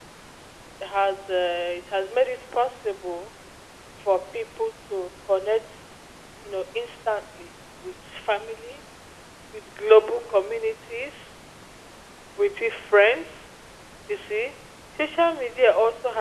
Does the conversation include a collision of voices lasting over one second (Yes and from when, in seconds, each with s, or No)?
No